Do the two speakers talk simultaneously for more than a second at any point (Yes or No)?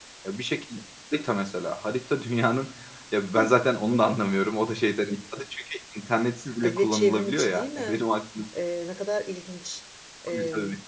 Yes